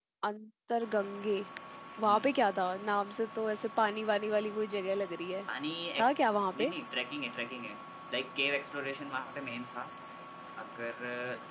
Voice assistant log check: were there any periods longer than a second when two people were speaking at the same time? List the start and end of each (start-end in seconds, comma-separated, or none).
none